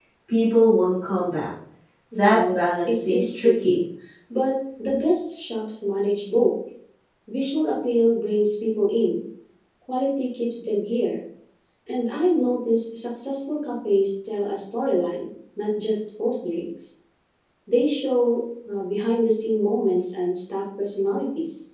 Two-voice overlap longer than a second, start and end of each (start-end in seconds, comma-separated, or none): 2.1-3.8